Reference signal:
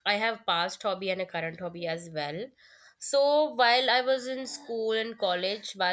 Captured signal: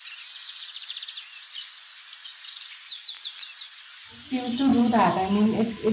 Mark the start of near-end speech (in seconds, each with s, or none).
4.2 s